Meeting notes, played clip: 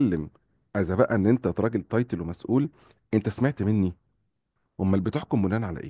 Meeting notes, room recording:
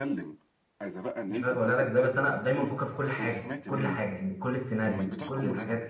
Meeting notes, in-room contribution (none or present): present